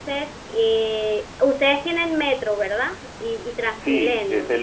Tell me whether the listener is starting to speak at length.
Yes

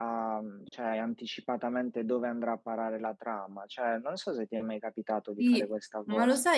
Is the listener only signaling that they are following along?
No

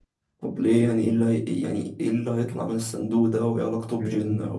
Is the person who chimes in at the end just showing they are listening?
No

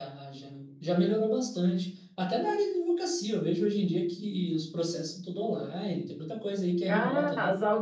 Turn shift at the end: Yes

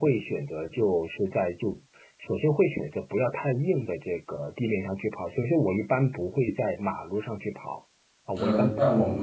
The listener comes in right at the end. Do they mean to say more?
Yes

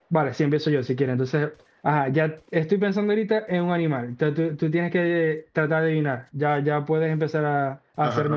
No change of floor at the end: No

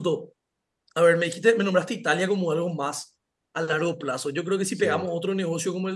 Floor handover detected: No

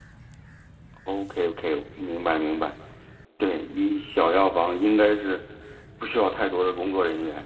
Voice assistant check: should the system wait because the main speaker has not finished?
No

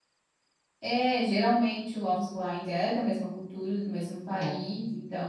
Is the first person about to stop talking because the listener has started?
No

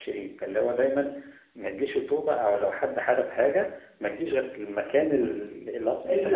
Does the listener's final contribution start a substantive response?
No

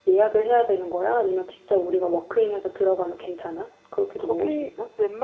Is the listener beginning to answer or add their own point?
Yes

